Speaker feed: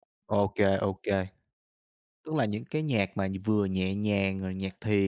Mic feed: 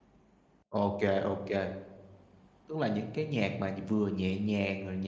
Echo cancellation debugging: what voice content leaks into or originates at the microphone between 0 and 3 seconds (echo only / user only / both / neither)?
echo only